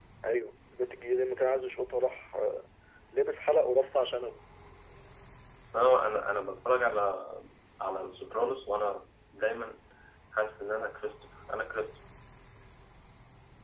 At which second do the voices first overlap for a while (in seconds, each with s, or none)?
none